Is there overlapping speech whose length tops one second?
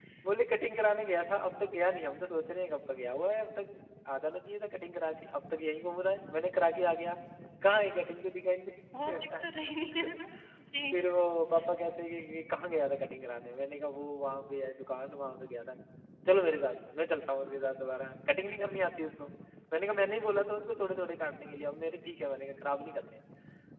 No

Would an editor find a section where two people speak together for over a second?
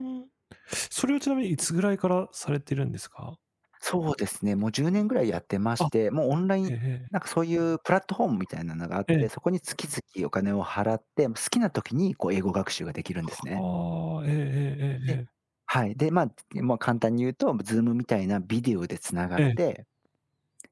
No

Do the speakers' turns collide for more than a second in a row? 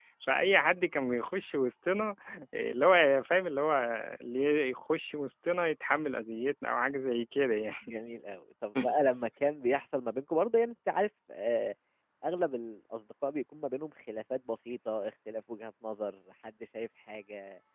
No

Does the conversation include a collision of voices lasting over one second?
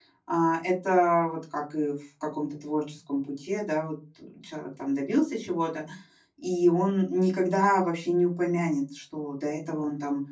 No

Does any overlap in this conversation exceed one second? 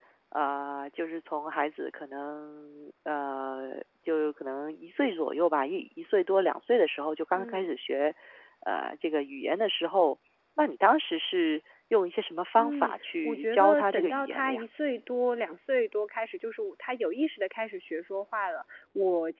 Yes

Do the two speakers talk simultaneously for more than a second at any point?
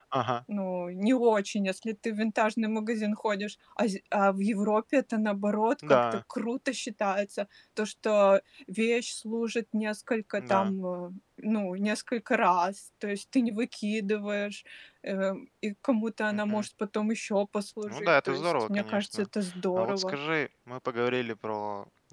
Yes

